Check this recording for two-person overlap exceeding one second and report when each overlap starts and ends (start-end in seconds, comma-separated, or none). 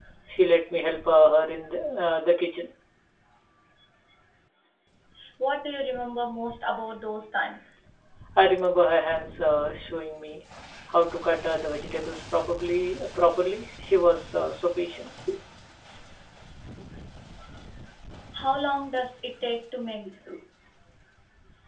none